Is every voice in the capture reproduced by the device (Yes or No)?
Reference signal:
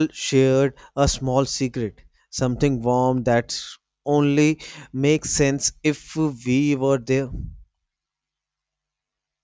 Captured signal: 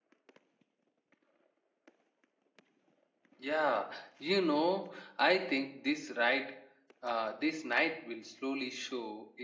No